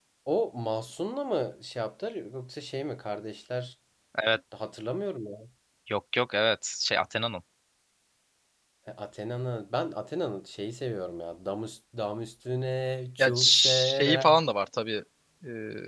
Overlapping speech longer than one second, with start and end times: 13.2-14.4

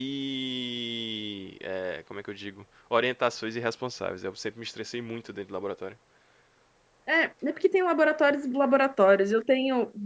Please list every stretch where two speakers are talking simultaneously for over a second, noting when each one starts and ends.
none

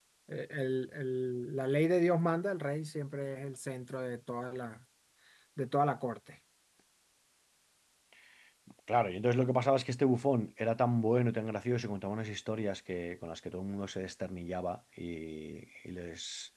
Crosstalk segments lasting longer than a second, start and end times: none

